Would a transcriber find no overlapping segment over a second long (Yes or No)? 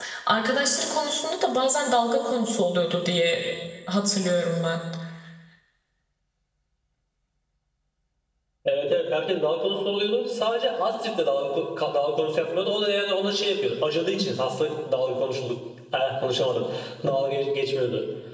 Yes